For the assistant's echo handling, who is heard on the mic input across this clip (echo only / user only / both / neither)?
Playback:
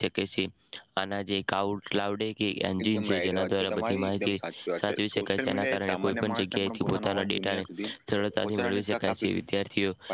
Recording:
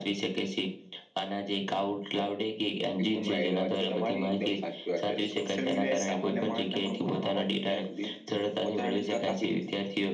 echo only